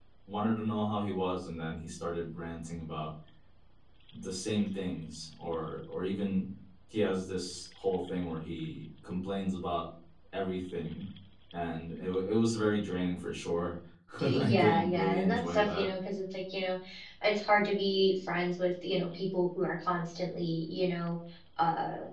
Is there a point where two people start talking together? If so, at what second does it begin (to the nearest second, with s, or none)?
14 s